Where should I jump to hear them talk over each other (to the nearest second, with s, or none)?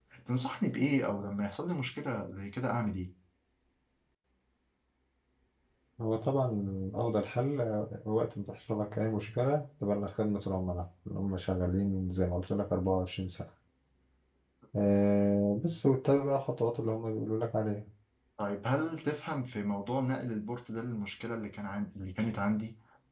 none